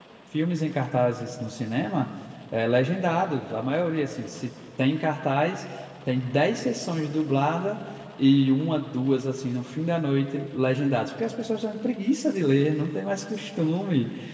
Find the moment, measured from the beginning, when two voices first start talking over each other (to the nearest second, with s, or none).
none